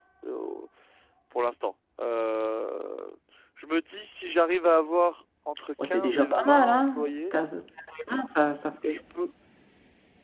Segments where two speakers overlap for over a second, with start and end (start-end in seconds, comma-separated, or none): 5.8-7.3